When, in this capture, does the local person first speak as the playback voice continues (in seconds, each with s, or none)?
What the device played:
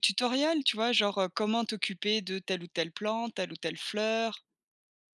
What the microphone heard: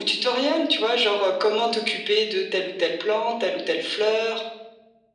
none